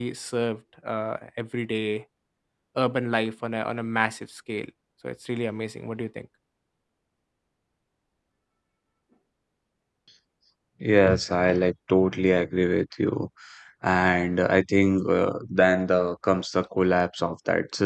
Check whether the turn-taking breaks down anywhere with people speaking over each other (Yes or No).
No